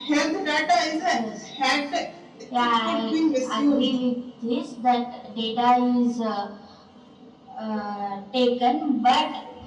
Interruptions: present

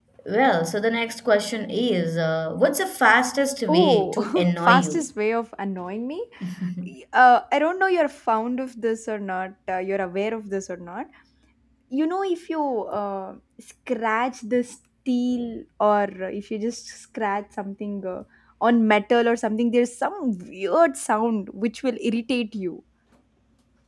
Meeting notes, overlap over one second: present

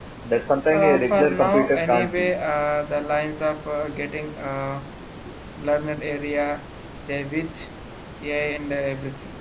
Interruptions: present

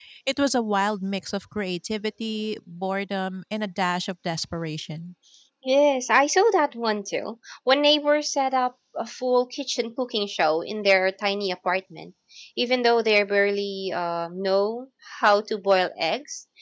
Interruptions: none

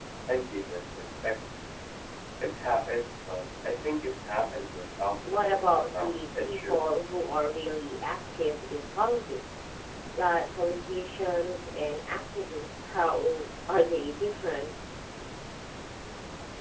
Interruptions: present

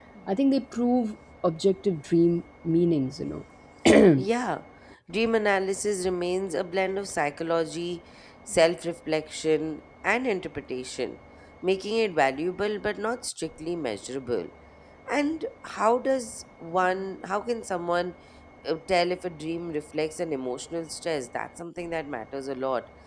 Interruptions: none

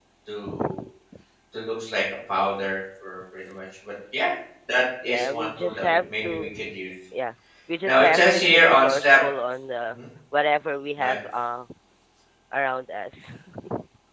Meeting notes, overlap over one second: present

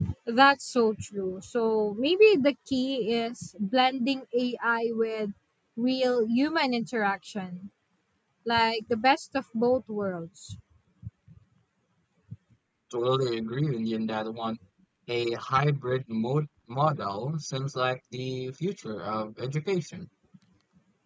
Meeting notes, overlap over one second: none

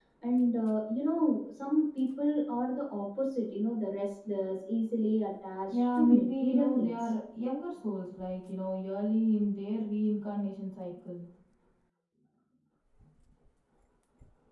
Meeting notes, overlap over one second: present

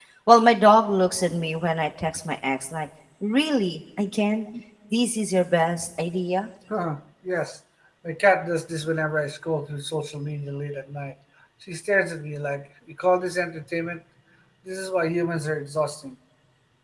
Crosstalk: none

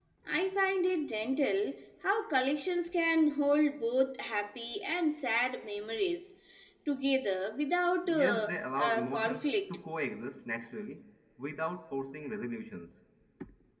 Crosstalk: present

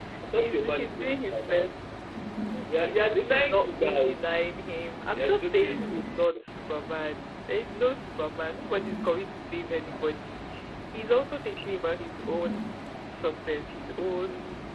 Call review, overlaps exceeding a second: present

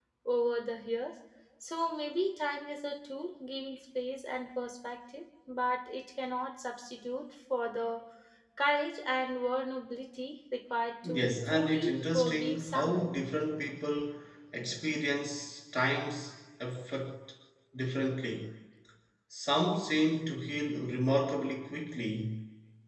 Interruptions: present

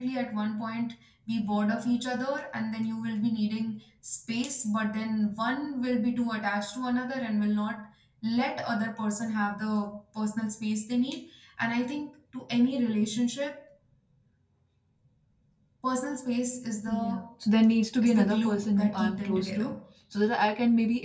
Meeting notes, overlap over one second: present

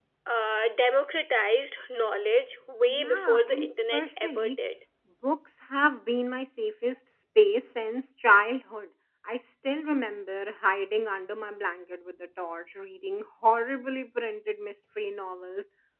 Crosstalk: present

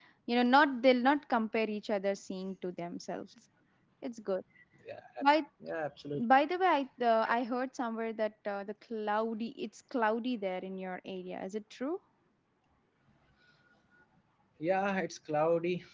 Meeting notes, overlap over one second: none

